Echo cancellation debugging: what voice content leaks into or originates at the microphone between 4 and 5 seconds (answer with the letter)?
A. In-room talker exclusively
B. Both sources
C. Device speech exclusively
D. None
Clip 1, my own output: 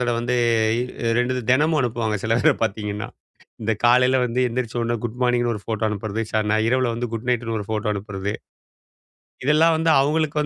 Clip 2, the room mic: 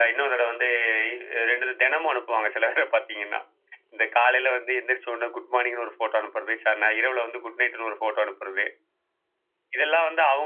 C